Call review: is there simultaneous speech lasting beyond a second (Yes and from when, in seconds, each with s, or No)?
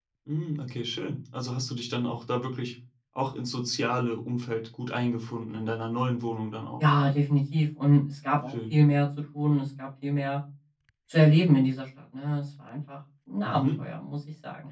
No